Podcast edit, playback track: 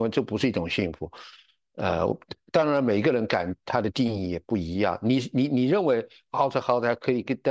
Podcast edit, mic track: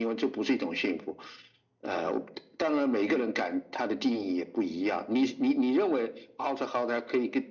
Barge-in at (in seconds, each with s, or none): none